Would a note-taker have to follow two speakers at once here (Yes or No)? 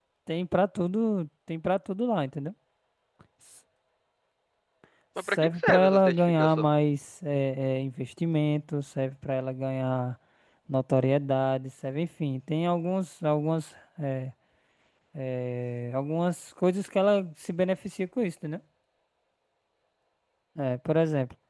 Yes